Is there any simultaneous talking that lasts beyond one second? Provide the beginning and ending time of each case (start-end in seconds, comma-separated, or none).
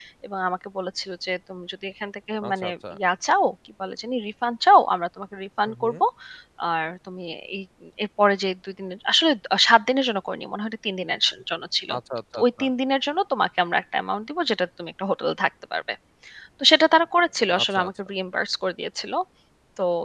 none